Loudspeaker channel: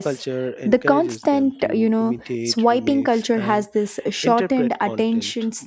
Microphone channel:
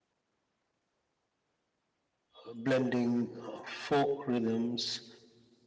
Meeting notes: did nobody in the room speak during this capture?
No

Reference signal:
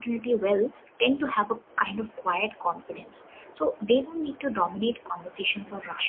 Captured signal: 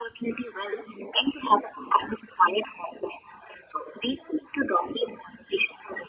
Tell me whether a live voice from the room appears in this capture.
No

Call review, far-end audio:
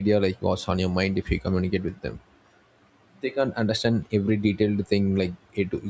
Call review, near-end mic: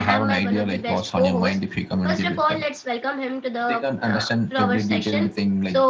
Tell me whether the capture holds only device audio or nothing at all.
No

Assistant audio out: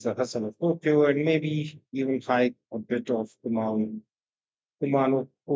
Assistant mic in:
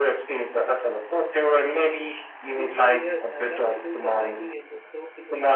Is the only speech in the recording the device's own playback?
No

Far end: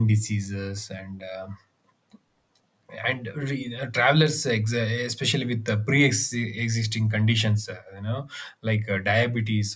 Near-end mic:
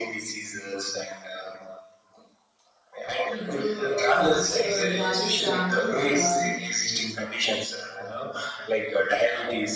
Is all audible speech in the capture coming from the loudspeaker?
No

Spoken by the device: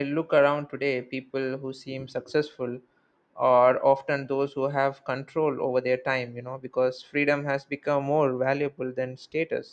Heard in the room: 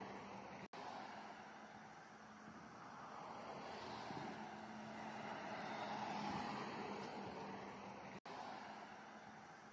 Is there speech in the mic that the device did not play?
No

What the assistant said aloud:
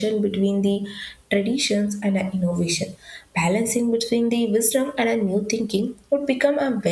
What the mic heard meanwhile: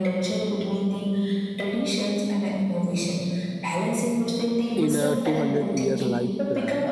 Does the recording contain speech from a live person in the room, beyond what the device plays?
Yes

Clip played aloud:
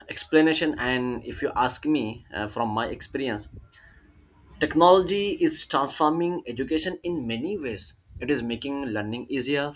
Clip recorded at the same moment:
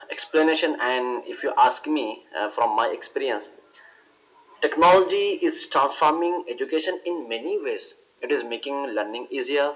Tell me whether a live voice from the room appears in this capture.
No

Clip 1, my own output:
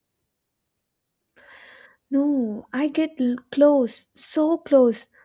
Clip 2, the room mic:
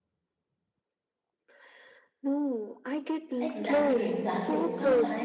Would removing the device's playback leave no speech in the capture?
No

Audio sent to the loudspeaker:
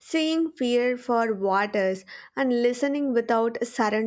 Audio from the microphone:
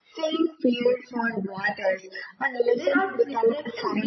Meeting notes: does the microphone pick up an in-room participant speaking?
Yes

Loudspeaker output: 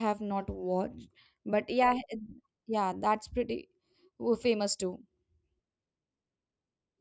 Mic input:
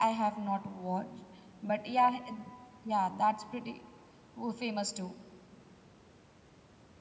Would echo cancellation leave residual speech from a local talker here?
No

